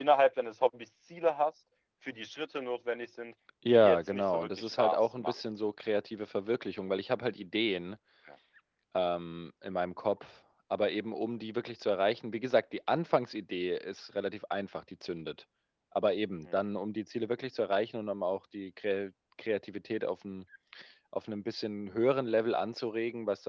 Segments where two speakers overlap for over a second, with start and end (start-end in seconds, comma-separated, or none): 3.7-5.3